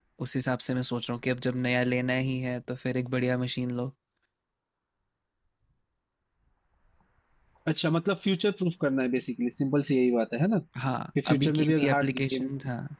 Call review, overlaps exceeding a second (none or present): present